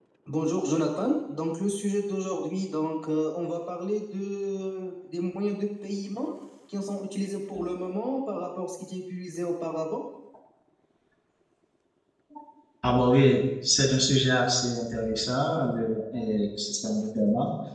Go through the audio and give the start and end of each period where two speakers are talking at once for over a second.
none

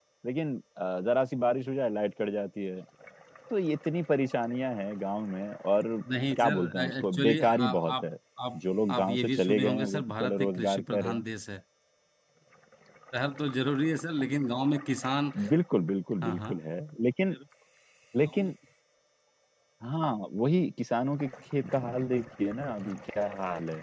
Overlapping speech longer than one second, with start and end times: 6.4-8.0, 9.0-11.2

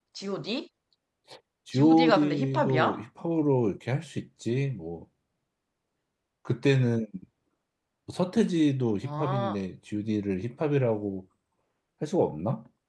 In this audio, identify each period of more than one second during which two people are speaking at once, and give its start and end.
1.7-3.0

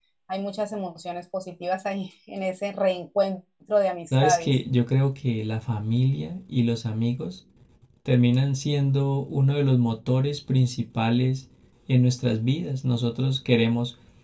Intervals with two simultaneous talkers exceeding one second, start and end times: none

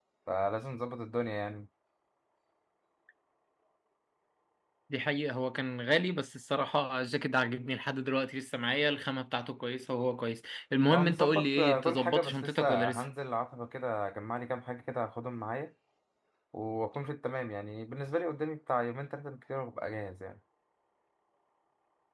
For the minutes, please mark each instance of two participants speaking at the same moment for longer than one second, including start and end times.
10.9-13.0

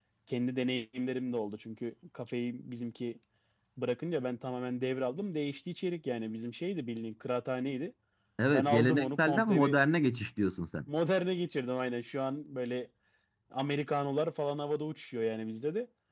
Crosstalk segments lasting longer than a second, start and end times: 8.5-9.8

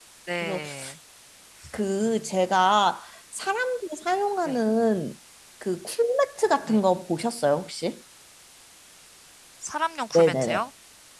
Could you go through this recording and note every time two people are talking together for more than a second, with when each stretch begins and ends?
none

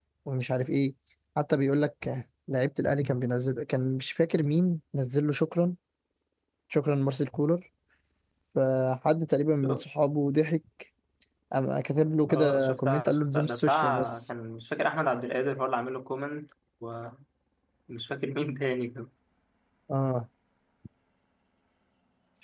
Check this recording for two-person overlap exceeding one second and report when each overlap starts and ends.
12.3-14.3

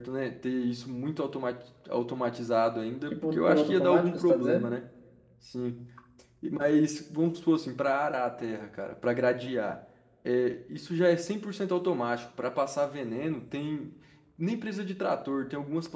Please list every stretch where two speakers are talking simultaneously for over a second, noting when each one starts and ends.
3.1-4.7

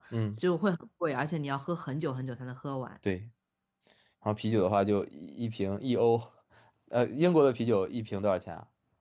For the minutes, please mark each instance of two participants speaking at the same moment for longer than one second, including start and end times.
none

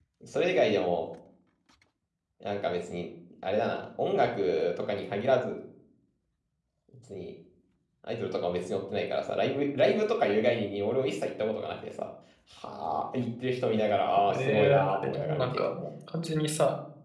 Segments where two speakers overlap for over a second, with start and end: 14.3-15.7

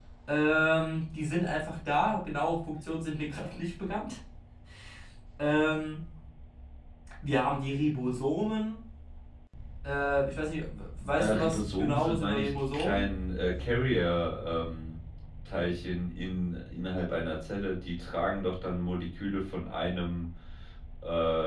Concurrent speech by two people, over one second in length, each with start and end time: 11.2-13.1

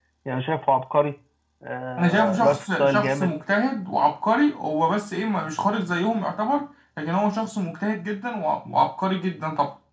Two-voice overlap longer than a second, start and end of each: 2.0-3.3

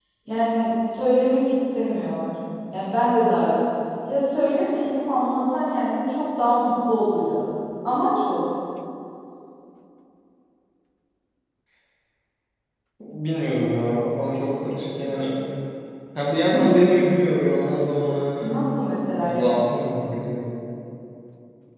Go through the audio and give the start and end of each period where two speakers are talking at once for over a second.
none

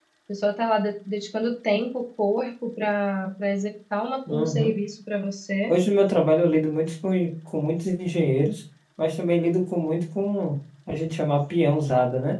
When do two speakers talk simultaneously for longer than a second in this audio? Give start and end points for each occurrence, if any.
none

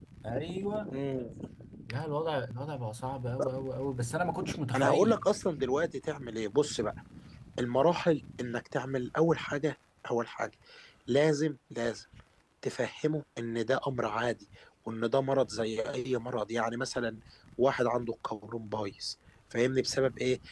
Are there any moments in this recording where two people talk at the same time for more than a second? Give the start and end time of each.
none

